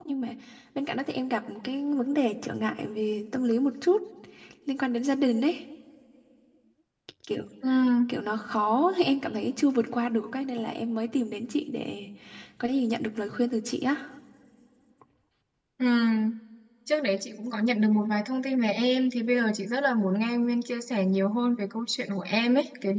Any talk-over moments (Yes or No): No